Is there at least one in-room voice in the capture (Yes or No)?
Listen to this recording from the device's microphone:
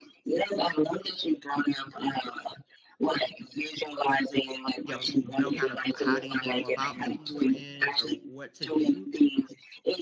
Yes